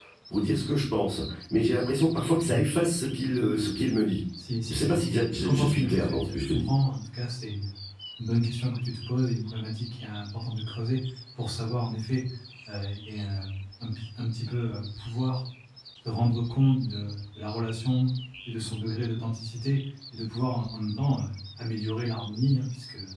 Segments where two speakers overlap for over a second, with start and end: 4.7-6.7

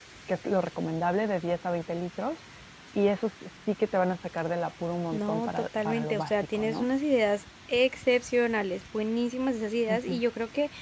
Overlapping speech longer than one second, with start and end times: 5.1-6.9

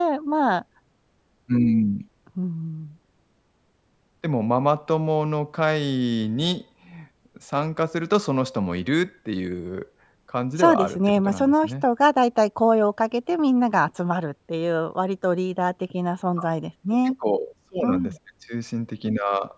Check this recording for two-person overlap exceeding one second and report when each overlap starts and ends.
10.6-11.8

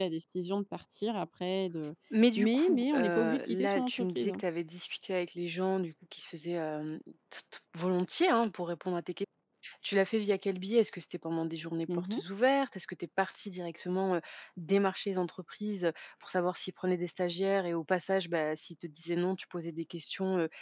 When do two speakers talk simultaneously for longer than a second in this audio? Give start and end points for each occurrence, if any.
2.4-4.4

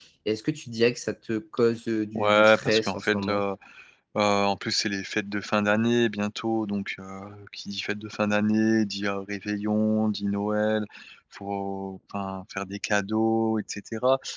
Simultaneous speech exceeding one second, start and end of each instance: 2.2-3.4

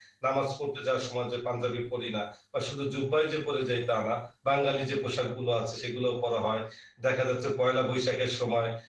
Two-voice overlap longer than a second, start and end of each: none

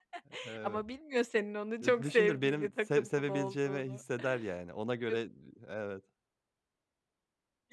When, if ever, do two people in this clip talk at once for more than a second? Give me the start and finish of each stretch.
1.8-4.0

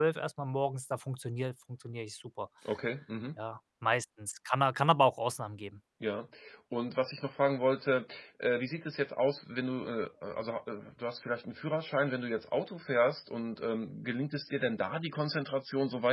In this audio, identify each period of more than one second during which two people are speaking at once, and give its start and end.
none

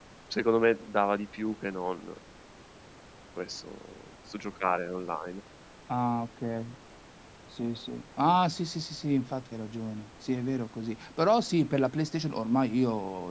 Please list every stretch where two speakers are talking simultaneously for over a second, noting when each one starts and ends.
none

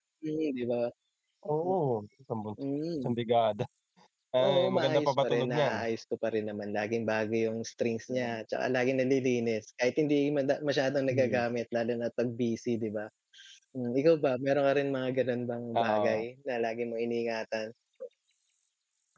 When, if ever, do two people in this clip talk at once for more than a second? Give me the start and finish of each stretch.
4.4-5.8

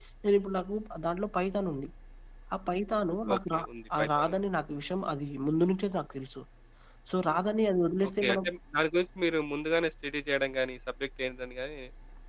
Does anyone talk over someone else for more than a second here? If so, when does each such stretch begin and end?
none

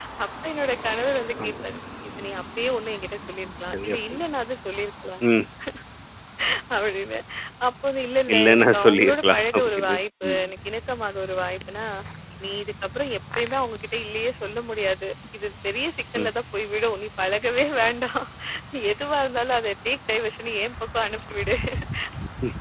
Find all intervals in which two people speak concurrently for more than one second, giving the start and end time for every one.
8.3-10.5

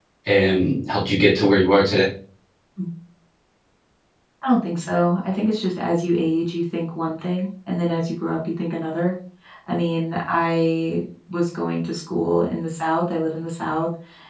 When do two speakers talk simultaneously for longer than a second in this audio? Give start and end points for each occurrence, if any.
none

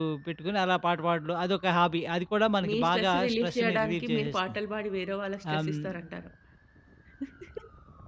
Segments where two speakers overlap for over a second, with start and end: 2.6-4.6

